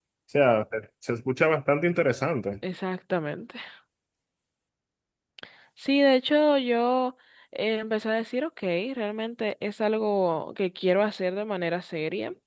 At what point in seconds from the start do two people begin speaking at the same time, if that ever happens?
none

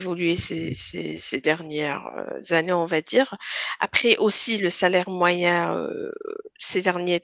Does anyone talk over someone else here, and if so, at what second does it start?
none

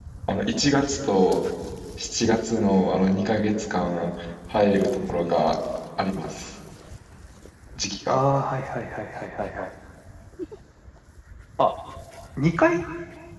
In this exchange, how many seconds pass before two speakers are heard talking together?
none

